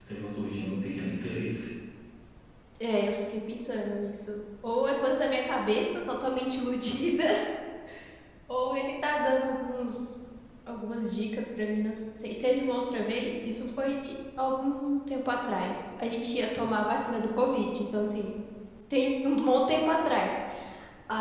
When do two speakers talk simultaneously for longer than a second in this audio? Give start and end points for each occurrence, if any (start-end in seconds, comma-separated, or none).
none